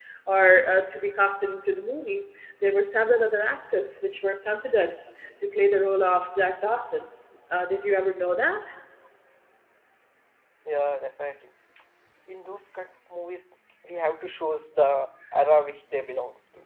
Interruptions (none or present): none